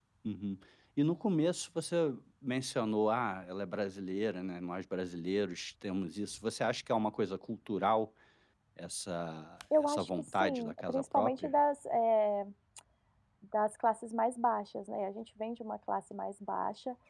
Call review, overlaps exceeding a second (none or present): present